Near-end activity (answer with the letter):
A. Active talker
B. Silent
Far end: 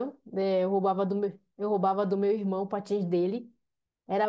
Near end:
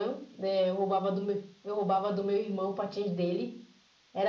B